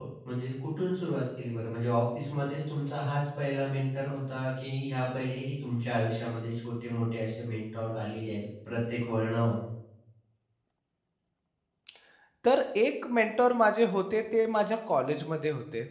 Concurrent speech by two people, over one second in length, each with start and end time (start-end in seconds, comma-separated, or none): none